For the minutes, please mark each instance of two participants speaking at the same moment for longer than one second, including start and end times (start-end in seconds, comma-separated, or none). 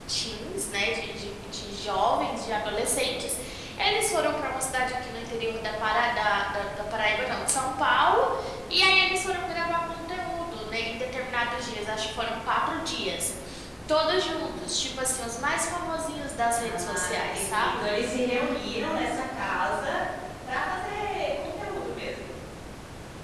16.6-17.8